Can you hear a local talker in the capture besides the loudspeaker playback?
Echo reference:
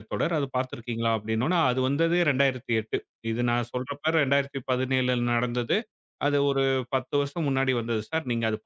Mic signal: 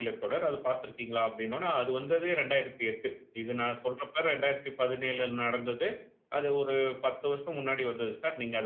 No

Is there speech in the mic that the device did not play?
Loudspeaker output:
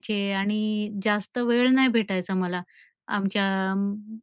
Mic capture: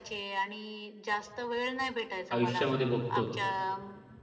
Yes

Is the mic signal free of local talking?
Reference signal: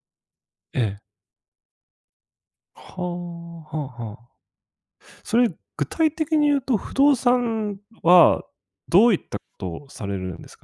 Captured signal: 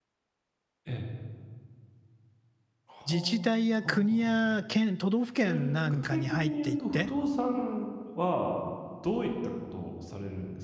No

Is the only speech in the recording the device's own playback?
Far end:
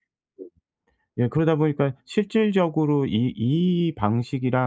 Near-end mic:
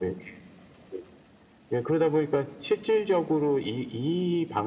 Yes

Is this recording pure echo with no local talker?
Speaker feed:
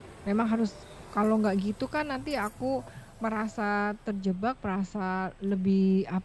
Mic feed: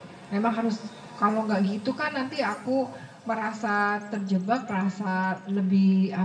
Yes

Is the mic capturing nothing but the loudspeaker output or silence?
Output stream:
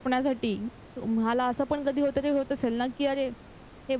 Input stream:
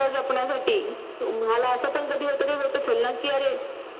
Yes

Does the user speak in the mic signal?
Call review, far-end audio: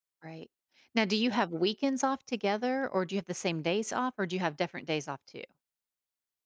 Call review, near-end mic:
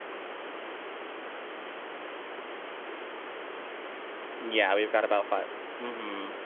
Yes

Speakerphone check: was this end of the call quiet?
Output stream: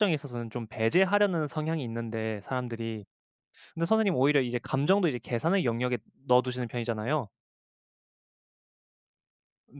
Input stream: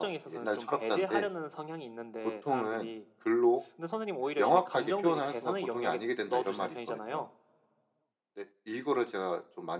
No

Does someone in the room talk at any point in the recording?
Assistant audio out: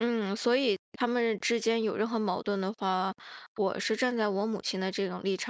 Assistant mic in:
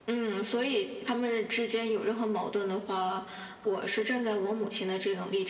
No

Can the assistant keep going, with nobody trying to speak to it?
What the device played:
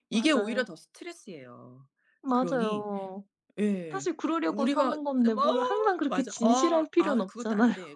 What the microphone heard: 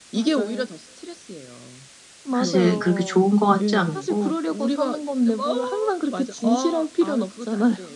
No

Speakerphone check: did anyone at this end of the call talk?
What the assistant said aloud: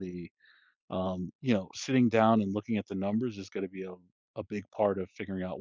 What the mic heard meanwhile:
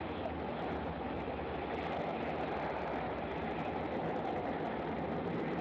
No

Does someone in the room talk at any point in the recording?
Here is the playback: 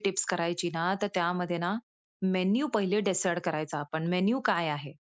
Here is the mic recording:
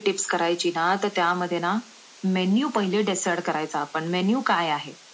No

